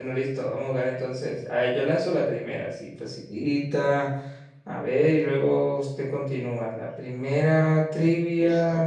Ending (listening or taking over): listening